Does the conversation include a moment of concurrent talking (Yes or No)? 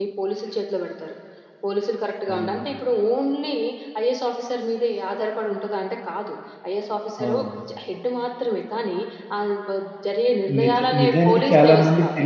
Yes